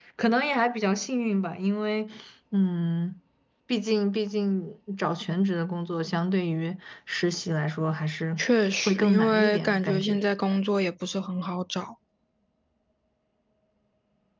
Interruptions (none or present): present